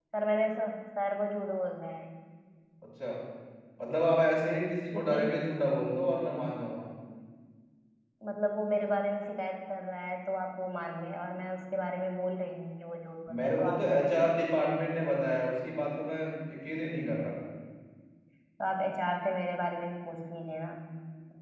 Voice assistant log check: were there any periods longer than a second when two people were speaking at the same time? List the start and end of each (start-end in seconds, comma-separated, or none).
13.4-14.7